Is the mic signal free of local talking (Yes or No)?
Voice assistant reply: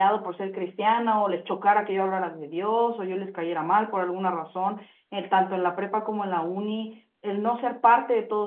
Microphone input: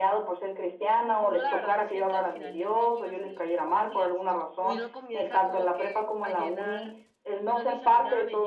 No